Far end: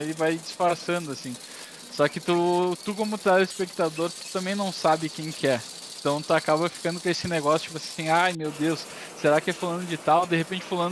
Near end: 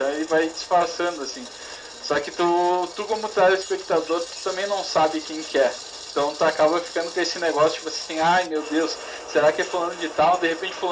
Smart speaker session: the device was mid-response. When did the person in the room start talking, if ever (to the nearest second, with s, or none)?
none